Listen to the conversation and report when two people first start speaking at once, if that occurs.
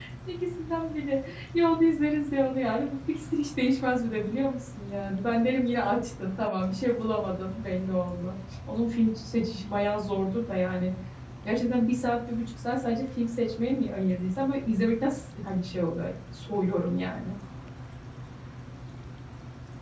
none

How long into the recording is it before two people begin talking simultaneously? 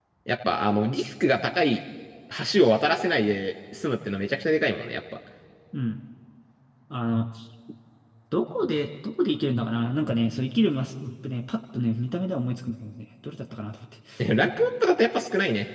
none

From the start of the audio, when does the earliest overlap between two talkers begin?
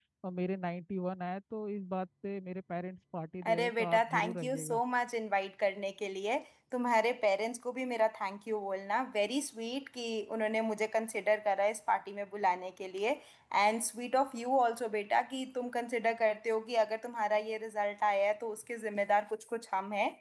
3 s

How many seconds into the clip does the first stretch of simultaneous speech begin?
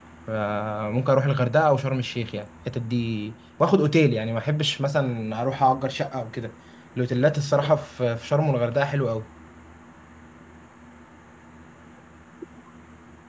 none

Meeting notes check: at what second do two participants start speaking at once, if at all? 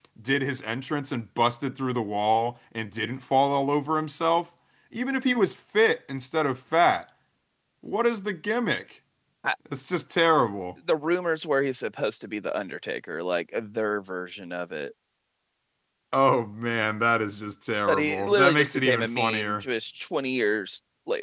18 s

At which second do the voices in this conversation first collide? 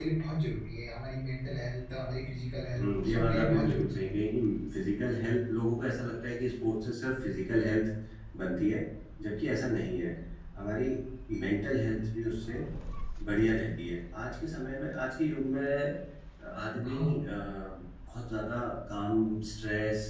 3 s

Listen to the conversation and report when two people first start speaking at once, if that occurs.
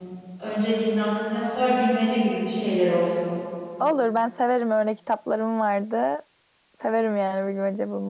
none

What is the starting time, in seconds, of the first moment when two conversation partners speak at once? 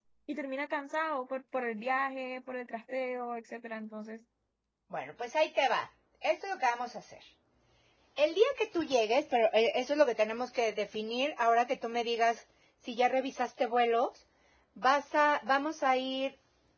none

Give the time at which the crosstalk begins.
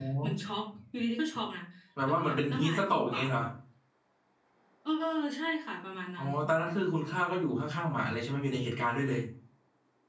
2 s

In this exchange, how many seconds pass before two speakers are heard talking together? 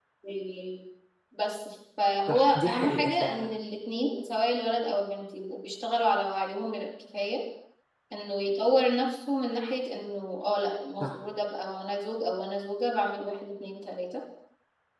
2 s

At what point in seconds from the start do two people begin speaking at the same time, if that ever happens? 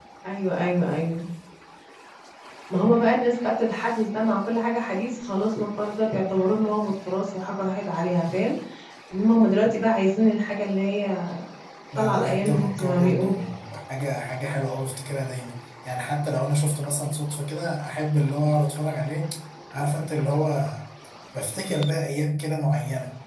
12 s

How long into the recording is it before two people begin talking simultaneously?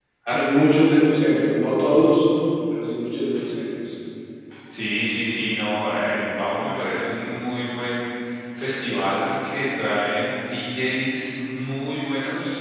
none

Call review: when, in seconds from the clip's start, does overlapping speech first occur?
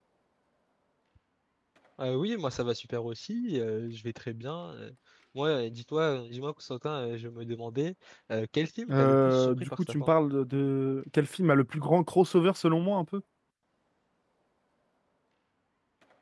9 s

